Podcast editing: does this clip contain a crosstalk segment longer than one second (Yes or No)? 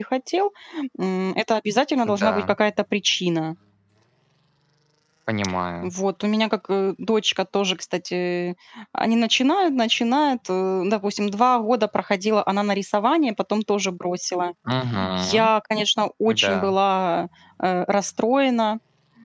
No